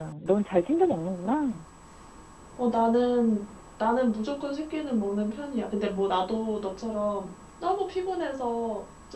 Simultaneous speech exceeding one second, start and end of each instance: none

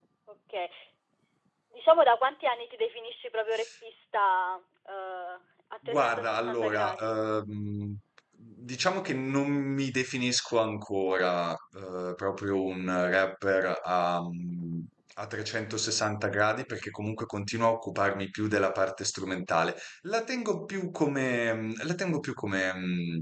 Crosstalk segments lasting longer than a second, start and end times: 5.8-7.1

